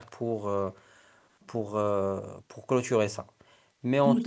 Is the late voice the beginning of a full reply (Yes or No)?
Yes